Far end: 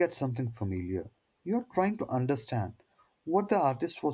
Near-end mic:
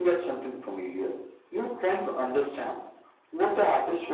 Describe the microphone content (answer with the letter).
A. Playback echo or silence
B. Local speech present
A